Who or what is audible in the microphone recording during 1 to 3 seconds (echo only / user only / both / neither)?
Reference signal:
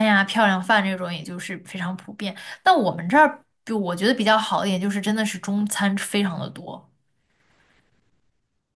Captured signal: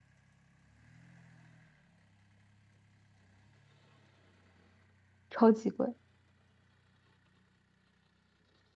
neither